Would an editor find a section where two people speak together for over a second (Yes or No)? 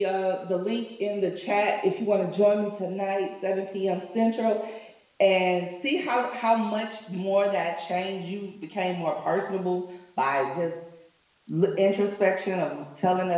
No